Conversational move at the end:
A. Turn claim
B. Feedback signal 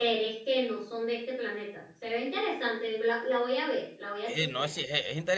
A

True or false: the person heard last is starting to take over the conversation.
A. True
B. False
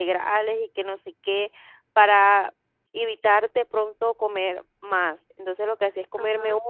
B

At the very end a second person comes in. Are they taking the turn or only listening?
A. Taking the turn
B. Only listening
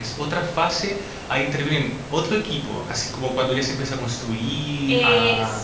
A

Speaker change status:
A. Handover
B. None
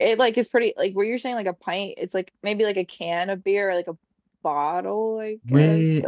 A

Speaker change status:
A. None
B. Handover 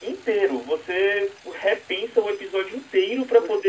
A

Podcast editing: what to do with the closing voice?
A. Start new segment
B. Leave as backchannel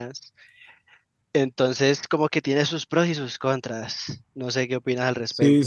A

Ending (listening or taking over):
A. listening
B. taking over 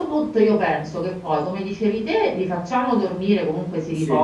A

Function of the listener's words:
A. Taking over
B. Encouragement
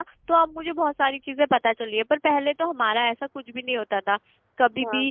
B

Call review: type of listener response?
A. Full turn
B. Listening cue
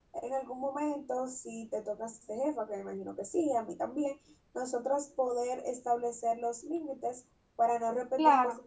A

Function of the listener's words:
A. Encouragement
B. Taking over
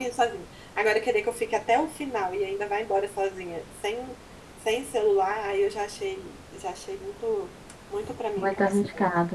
B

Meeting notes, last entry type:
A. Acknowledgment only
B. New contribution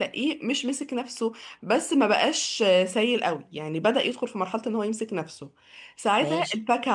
A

